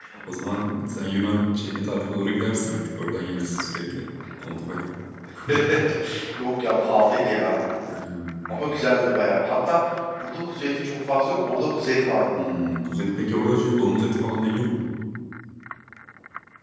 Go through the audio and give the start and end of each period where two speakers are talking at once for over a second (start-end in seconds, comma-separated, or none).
none